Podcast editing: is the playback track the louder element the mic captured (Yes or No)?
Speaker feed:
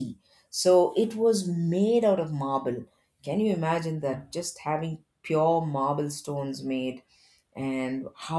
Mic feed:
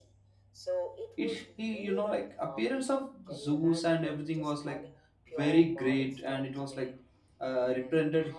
No